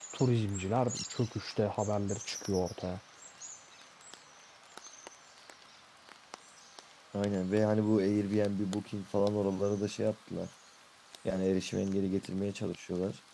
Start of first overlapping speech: none

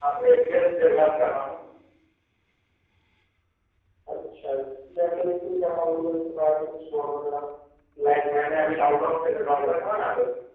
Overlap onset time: none

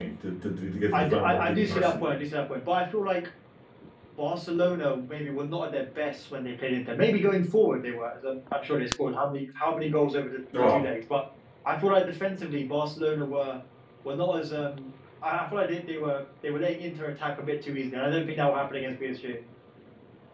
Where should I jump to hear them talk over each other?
0.9 s

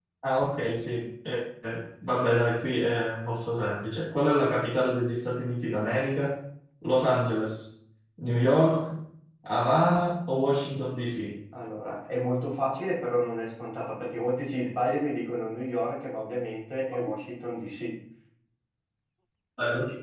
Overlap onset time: none

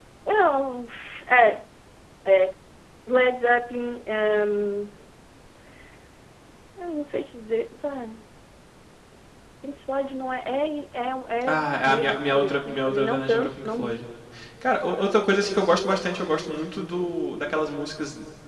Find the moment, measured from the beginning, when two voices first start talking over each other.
11.5 s

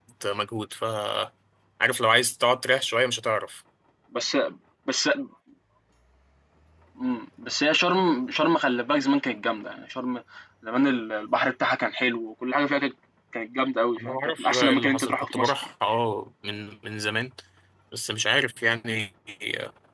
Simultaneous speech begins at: 14.0 s

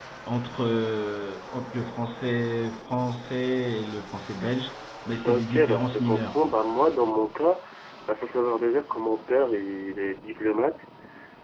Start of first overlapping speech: 5.2 s

